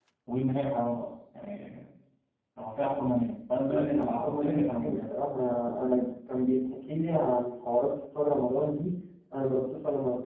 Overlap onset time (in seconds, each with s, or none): 3.7 s